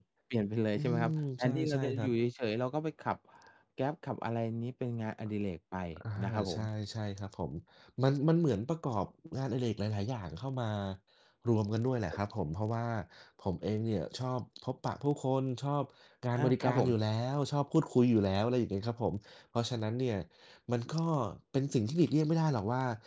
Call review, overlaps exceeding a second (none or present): present